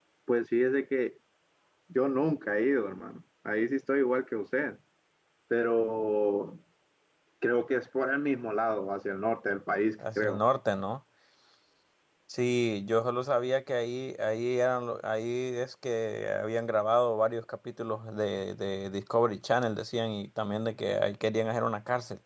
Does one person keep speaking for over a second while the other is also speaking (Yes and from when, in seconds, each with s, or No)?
No